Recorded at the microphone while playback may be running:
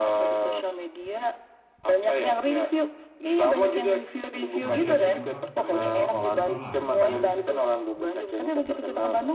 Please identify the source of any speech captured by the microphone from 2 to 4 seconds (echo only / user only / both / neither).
echo only